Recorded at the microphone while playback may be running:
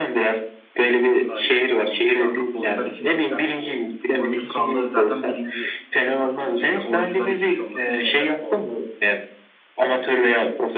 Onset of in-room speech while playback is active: 1.2 s

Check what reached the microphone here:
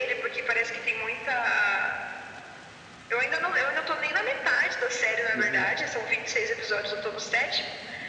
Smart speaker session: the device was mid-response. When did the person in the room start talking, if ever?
5.3 s

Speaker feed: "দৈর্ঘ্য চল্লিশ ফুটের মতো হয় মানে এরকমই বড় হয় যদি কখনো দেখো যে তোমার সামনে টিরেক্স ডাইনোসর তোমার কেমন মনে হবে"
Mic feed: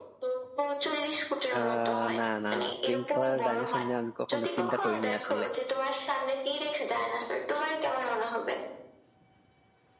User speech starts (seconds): 1.5 s

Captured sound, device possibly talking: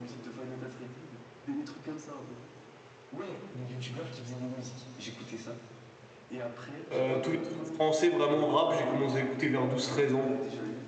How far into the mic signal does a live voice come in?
6.9 s

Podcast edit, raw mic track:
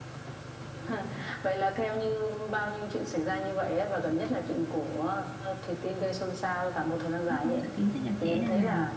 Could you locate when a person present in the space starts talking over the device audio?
7.3 s

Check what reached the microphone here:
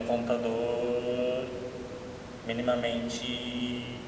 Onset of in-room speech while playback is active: none

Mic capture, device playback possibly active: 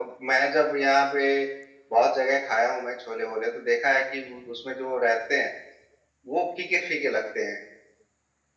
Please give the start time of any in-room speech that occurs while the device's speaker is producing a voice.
none

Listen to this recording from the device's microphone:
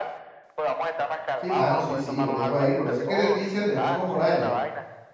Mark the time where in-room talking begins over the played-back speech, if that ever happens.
1.3 s

